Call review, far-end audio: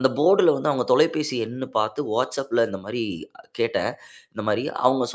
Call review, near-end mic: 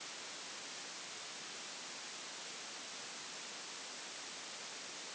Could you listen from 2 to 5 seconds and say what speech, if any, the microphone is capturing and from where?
neither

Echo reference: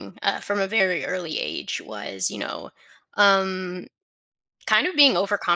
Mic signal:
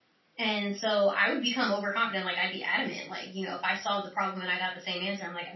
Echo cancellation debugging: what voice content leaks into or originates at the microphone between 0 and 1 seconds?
user only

